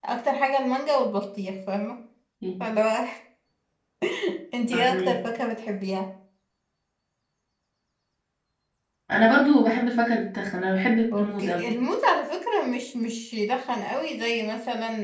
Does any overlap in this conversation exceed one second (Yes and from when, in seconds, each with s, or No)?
No